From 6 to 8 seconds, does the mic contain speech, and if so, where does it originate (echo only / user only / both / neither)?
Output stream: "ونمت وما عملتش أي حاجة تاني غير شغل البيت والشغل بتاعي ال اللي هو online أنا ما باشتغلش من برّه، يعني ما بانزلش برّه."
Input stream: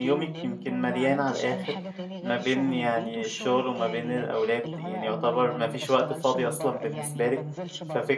both